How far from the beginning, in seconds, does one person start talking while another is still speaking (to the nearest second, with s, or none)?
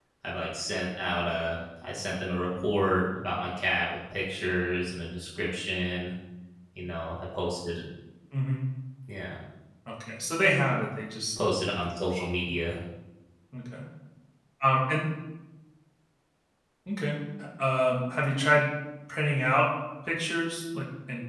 none